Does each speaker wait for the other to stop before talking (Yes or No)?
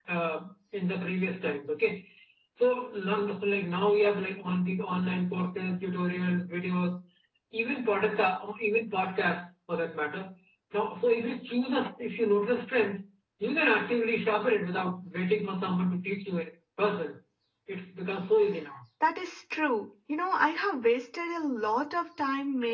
Yes